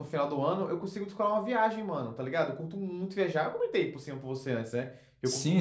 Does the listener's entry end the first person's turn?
Yes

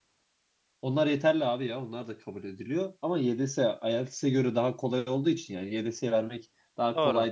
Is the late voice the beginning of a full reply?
No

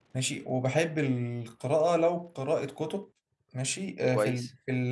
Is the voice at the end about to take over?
No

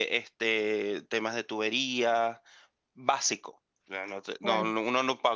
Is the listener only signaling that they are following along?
Yes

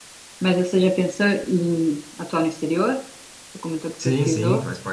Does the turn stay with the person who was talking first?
No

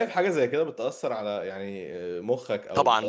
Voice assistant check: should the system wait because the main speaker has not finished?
No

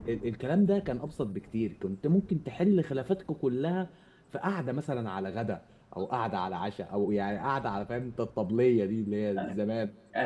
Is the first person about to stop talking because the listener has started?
Yes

